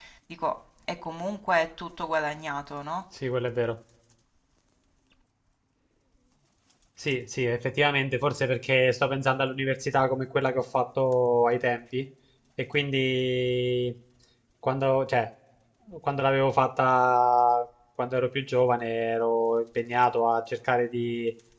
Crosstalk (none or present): none